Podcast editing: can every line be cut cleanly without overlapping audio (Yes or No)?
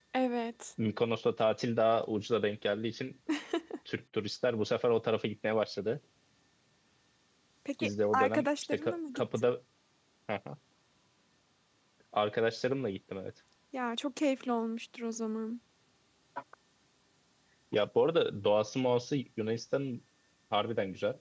No